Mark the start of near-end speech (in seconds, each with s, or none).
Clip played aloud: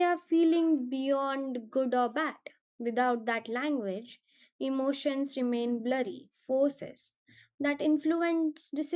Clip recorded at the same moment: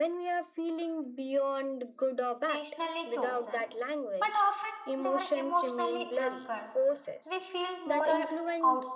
2.5 s